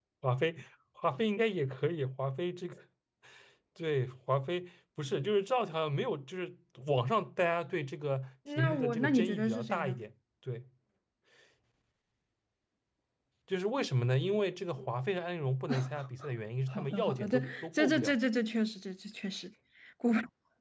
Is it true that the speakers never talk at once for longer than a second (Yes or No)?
No